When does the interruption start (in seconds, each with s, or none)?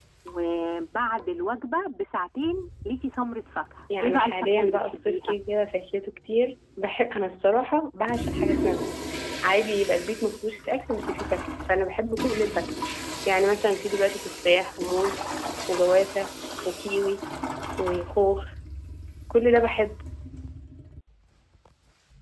3.9 s